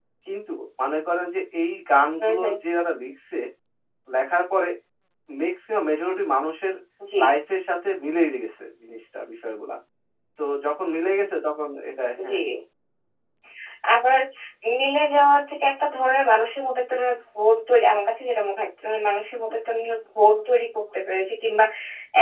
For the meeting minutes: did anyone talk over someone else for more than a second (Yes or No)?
No